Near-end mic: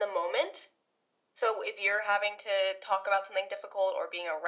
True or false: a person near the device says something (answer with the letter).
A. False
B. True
A